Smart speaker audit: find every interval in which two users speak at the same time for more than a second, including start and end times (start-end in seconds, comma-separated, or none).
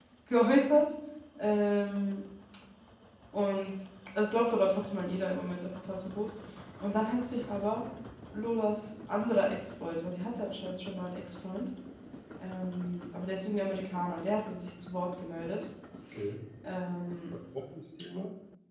none